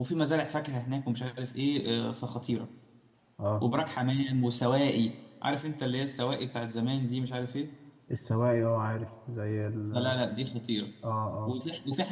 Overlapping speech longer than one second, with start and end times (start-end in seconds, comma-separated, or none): none